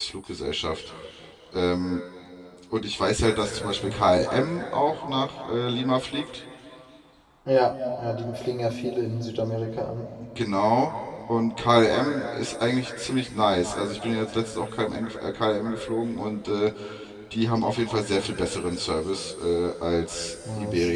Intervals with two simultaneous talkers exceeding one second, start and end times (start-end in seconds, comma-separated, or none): none